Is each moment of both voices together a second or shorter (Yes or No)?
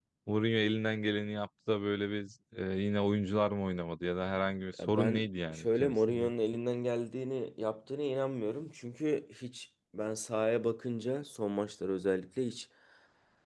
No